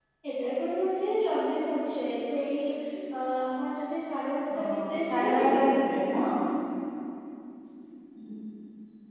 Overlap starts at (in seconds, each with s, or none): 4.5 s